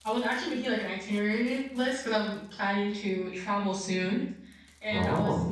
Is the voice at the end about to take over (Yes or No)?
No